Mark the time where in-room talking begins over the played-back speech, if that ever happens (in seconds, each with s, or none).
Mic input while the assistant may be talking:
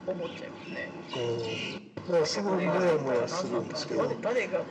2.4 s